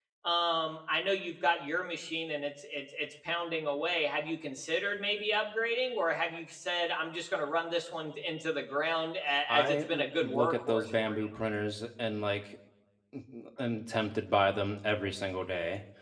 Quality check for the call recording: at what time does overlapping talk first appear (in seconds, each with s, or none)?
9.5 s